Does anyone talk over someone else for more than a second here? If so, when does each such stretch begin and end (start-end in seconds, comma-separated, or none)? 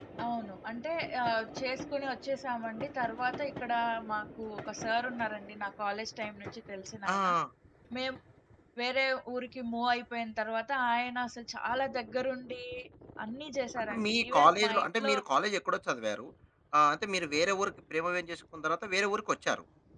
13.9-15.1